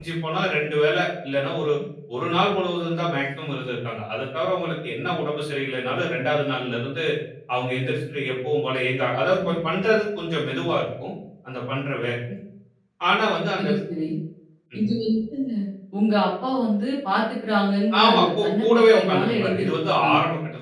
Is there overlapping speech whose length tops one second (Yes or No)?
Yes